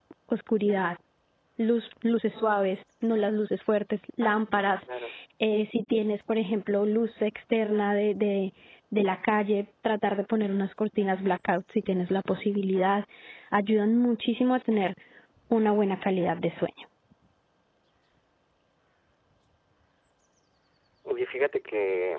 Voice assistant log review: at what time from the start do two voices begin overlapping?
none

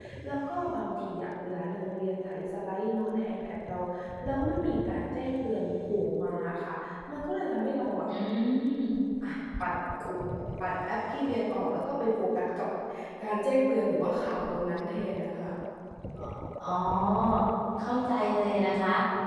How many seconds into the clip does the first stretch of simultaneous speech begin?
none

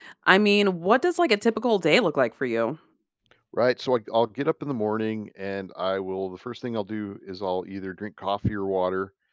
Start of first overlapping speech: none

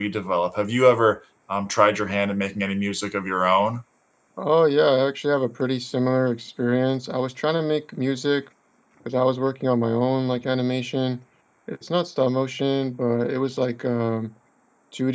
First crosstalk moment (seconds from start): none

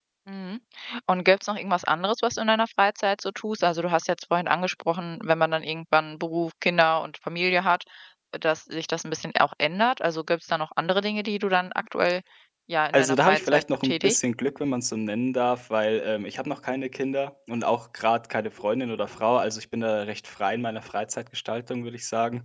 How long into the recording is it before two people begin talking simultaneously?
13 s

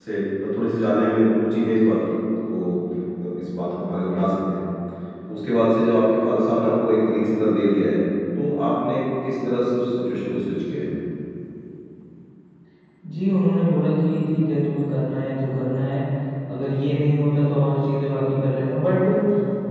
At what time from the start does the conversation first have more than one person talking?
none

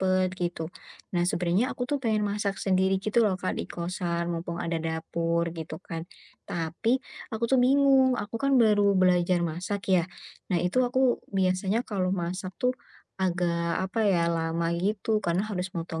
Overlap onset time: none

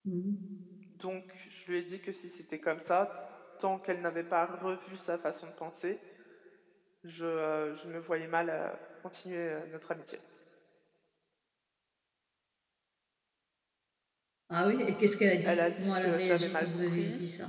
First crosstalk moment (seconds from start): 15 s

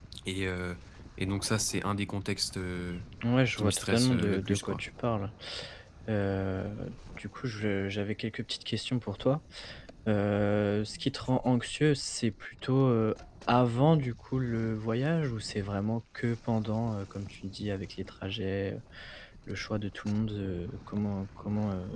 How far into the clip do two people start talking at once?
4 s

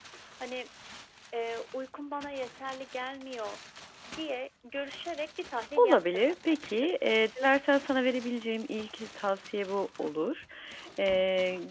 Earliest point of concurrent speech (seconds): 6 s

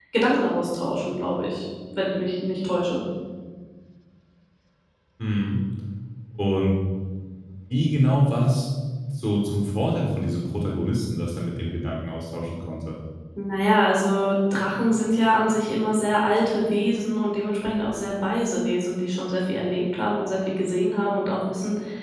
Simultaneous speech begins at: none

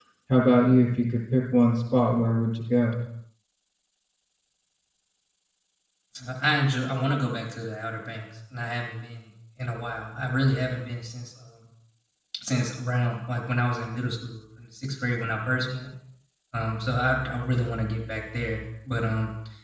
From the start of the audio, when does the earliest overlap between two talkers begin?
none

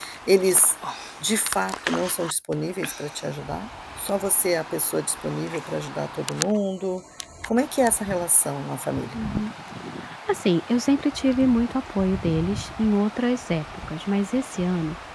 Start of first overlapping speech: none

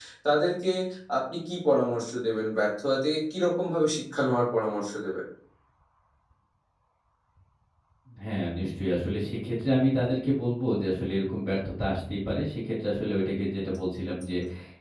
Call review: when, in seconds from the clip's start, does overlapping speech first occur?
none

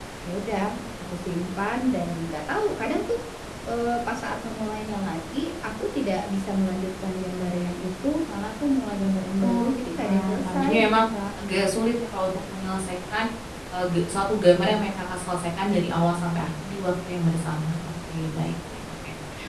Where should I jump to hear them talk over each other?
9 s

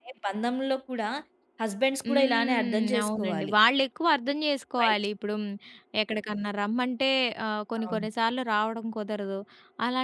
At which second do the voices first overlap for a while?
2 s

